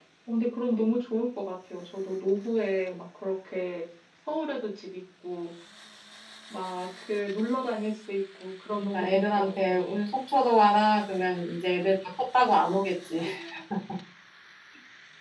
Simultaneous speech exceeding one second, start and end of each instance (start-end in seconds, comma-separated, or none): 8.7-9.9